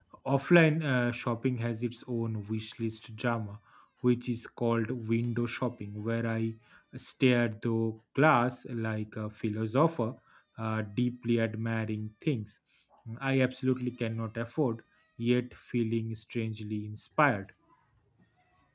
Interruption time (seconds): none

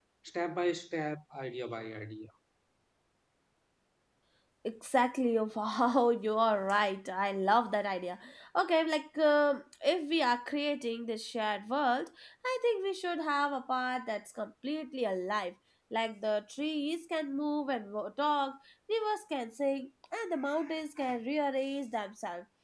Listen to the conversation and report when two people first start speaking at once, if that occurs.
none

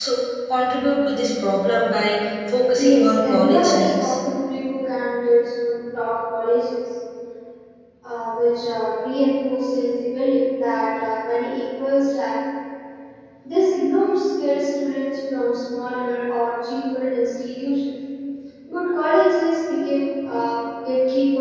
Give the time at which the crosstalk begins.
2.7 s

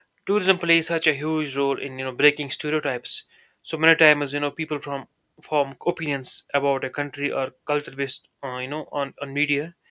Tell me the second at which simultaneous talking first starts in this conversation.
none

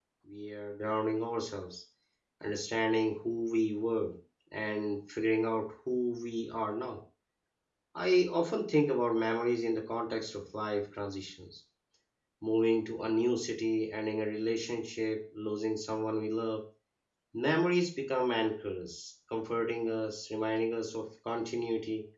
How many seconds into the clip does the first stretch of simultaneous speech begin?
none

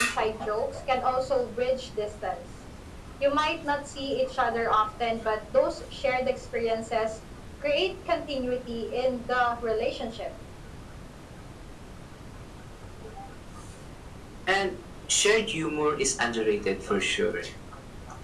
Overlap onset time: none

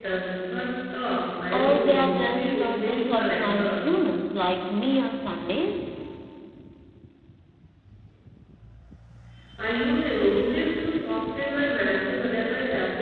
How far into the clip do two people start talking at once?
1.5 s

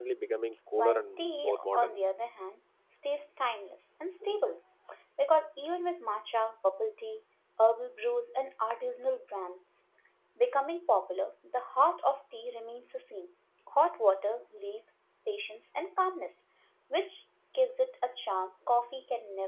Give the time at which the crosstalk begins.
0.8 s

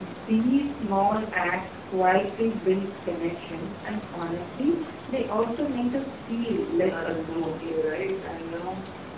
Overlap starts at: 6.5 s

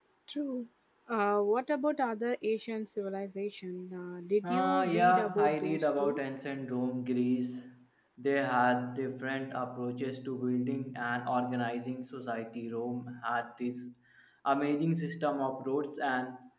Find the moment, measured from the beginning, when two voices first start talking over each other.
4.4 s

